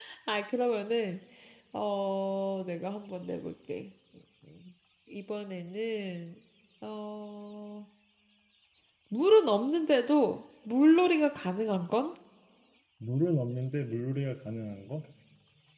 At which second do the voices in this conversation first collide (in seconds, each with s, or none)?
none